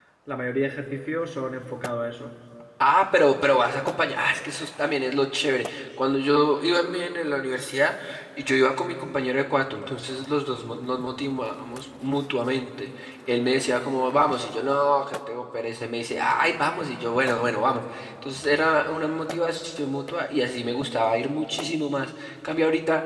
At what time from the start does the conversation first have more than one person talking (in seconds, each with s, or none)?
none